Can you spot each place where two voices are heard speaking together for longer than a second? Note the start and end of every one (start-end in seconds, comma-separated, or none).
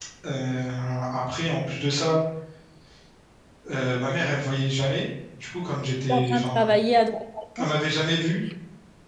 none